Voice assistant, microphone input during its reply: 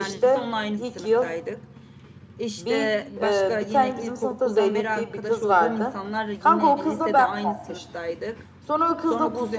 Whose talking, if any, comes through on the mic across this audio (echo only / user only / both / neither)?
both